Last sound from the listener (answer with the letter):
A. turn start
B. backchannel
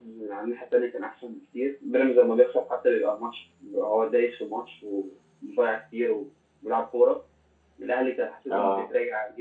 B